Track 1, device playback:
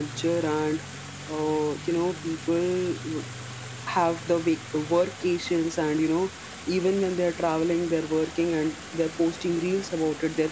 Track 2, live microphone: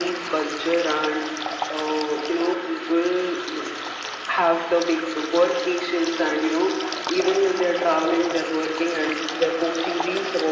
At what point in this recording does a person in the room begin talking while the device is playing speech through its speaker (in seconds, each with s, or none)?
none